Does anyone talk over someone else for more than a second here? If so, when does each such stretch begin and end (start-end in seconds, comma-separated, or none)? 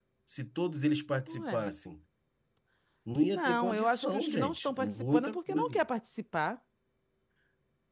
3.3-5.8